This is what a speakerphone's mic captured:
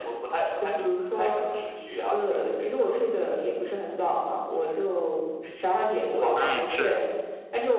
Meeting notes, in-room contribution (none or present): present